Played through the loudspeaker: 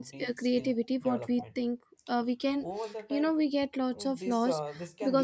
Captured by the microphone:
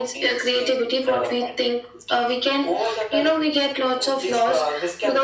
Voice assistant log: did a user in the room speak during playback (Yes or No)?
No